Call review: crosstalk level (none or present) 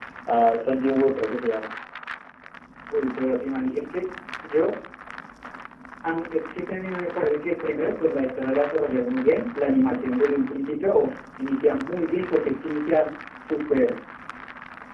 none